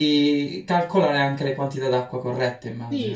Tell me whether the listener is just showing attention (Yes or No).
No